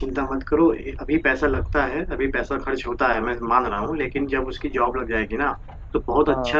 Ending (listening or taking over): listening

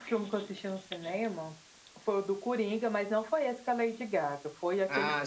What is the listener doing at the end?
taking over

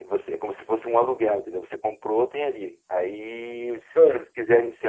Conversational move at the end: listening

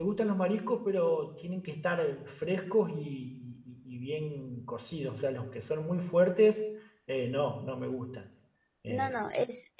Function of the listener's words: taking over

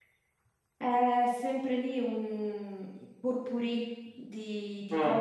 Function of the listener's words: listening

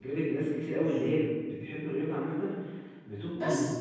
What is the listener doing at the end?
listening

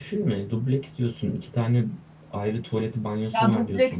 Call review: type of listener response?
taking over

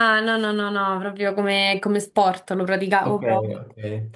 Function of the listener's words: taking over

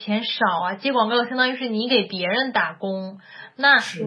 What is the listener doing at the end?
listening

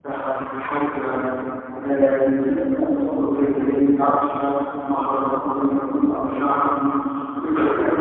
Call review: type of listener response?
listening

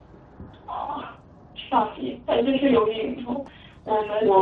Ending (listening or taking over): taking over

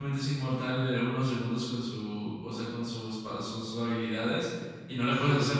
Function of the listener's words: listening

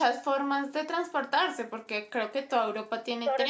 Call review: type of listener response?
taking over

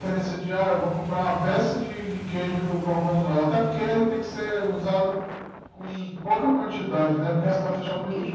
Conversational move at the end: taking over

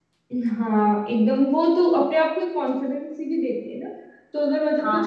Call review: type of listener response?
listening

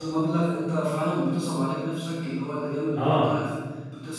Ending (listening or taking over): listening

